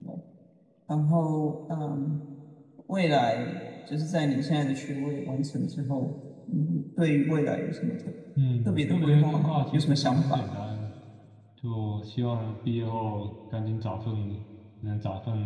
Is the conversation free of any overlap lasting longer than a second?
No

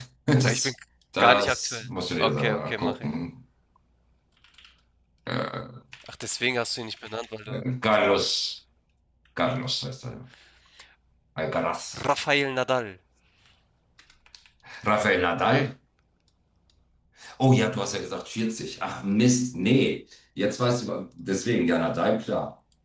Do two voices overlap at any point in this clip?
Yes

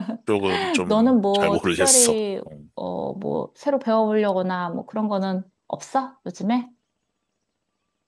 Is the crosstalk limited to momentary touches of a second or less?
No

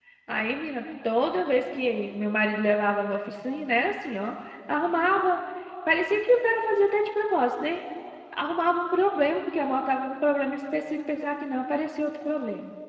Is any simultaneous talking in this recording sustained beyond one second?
No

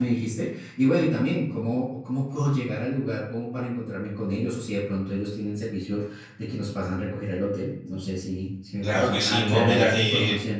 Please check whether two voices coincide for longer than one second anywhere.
Yes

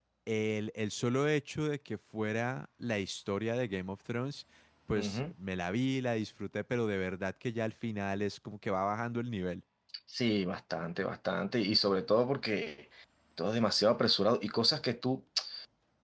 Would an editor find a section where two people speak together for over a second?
No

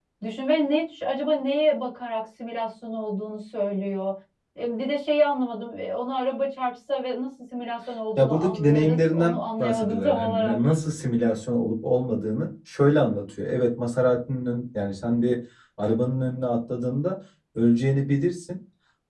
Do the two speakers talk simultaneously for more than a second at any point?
Yes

